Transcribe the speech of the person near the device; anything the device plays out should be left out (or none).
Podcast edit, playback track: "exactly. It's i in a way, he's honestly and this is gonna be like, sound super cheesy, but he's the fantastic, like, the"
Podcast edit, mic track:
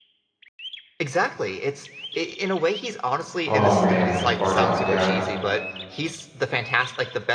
Oh man, Bardock, yeah.